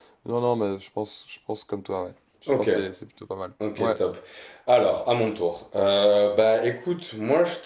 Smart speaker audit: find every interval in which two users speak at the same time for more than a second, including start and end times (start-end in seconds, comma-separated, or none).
none